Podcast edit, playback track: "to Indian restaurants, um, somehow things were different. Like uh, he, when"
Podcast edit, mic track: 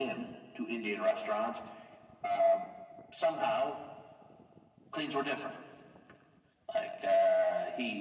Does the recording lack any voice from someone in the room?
Yes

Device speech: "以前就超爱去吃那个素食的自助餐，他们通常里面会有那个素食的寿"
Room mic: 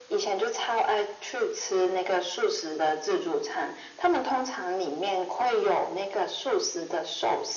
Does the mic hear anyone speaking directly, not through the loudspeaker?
No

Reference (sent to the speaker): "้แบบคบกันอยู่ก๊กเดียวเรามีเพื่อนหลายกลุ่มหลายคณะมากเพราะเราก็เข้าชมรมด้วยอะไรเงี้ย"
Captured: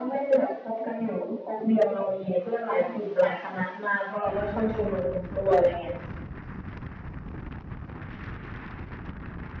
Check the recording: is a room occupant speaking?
No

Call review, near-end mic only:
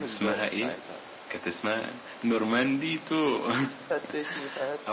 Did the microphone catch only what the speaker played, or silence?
Yes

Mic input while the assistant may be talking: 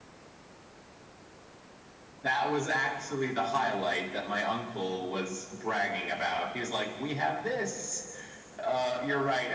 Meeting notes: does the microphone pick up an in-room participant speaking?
No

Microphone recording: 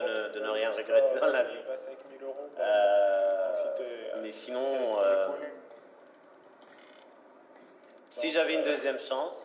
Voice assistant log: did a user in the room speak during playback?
No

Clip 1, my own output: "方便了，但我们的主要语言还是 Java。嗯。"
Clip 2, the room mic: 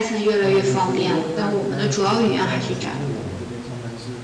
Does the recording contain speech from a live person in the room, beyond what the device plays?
Yes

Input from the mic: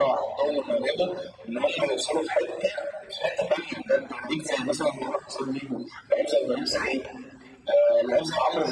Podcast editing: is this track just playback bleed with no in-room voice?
Yes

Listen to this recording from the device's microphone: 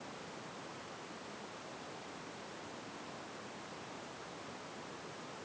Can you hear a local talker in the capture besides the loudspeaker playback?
No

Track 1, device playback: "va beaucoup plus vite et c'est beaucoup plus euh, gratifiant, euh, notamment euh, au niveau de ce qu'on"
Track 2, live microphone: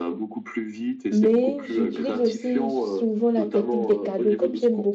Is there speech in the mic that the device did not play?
Yes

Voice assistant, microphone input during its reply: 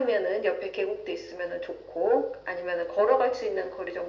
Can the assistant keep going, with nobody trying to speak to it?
Yes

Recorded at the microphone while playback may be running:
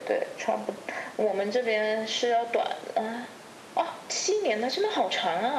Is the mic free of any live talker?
Yes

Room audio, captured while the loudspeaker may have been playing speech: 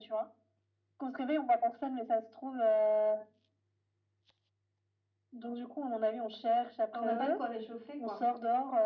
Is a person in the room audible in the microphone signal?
Yes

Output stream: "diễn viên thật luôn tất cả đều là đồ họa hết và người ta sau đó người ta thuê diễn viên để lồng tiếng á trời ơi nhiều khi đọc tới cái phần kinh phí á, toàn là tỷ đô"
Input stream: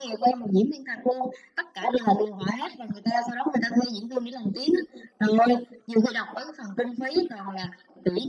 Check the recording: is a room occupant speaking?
No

